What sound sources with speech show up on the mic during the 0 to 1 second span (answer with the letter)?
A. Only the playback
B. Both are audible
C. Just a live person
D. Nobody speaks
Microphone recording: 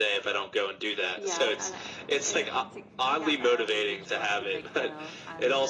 A